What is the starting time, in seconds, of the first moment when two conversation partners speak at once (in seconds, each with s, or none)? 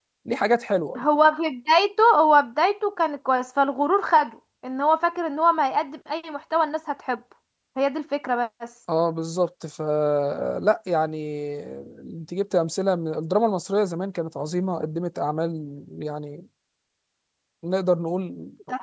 none